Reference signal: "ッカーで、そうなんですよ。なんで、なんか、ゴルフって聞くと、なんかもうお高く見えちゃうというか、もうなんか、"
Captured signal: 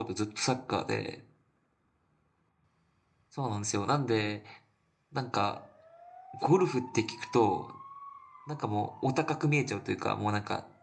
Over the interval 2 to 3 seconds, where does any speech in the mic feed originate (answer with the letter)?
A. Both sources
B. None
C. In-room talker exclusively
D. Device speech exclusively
B